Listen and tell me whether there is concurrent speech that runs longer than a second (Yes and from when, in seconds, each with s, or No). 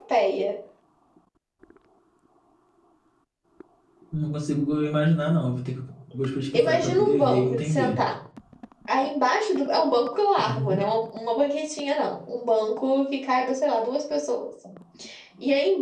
Yes, from 6.5 s